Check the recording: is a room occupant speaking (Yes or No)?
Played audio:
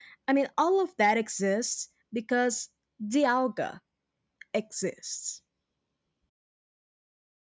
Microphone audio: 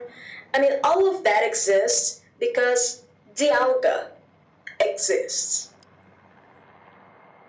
No